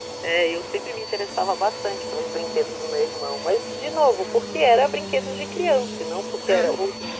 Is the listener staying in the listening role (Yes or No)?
Yes